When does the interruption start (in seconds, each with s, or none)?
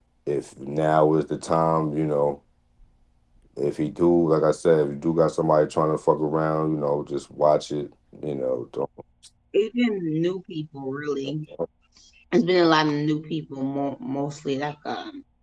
none